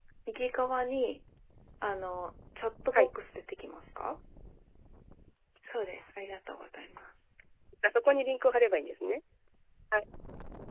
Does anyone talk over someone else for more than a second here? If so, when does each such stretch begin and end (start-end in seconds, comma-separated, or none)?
none